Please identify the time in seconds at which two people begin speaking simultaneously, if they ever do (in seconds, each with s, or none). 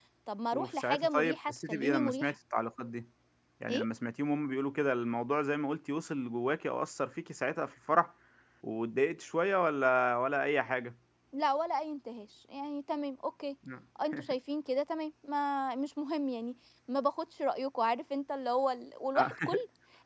0.5 s